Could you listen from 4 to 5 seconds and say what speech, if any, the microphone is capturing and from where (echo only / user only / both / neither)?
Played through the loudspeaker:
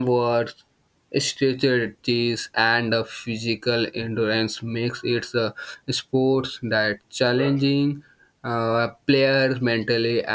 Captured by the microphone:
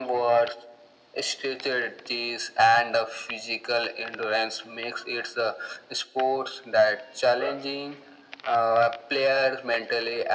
echo only